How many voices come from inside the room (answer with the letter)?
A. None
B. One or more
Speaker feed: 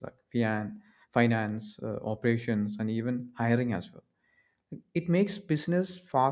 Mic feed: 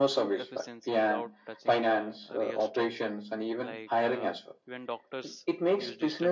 B